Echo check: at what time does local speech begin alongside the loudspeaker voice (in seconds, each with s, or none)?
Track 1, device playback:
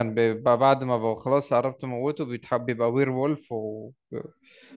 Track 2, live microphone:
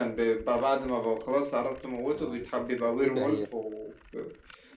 2.1 s